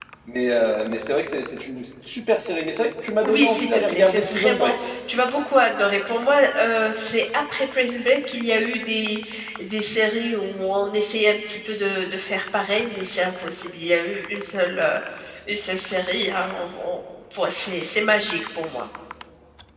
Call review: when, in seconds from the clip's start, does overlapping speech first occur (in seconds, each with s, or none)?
3.2 s